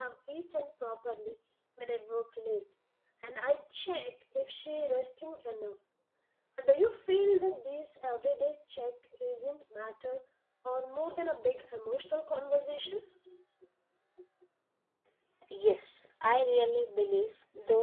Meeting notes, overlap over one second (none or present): none